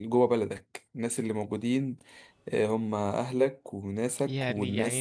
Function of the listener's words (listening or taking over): taking over